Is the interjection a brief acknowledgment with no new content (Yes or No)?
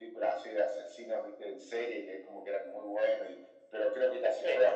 Yes